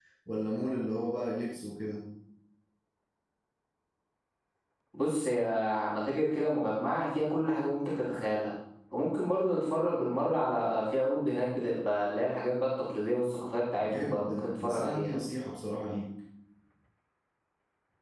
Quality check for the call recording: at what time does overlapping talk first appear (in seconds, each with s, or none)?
13.8 s